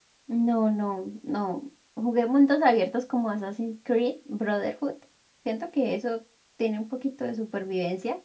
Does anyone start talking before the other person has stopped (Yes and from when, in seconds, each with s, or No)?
No